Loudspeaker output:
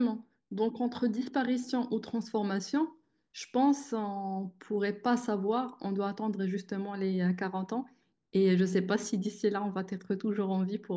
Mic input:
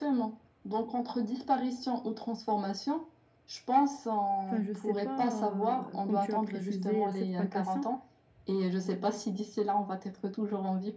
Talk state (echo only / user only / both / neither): both